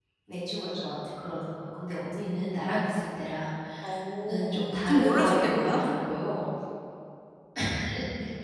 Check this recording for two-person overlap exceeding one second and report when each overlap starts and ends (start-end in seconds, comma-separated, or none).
4.5-5.8